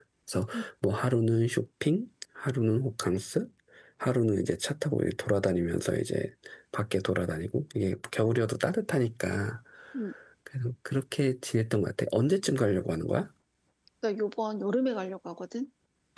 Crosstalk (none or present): none